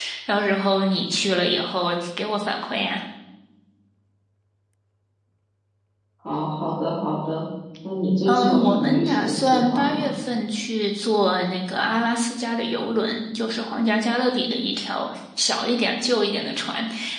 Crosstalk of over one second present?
Yes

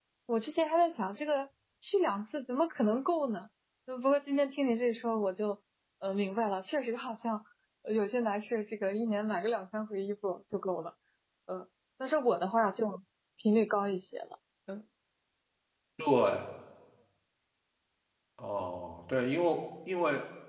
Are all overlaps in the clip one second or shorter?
Yes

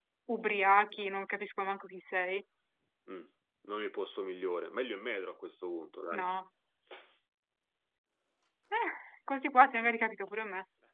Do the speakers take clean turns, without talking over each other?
Yes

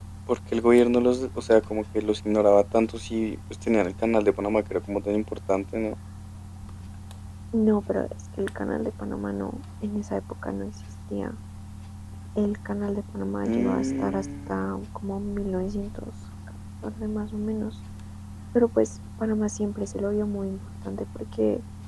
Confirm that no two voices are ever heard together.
No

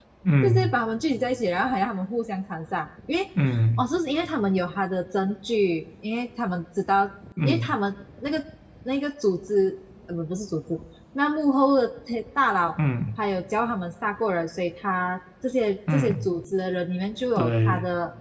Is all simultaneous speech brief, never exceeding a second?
Yes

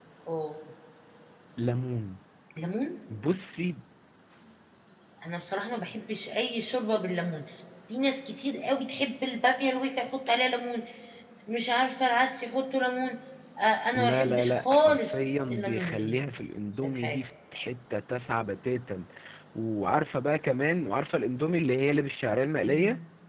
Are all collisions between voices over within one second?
No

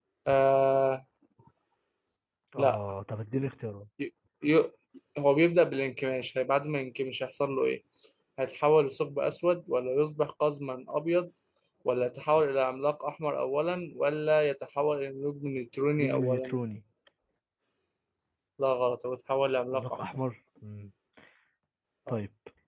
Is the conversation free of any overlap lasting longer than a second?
Yes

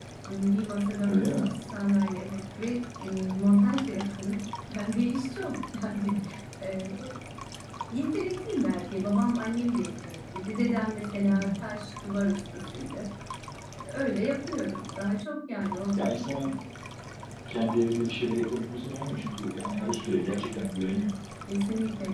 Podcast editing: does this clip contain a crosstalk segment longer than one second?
No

